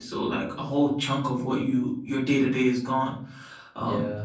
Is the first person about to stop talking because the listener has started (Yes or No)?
No